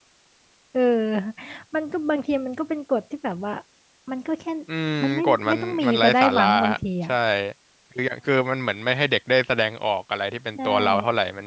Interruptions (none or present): present